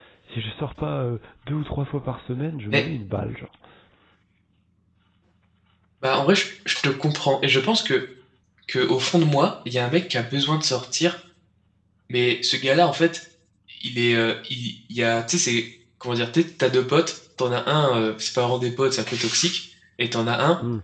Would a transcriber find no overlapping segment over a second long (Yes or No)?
Yes